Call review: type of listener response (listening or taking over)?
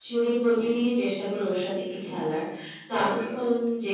listening